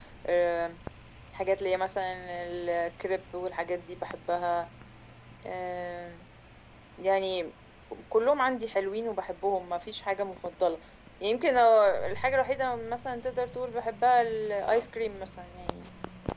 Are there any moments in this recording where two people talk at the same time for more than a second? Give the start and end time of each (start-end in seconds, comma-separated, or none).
none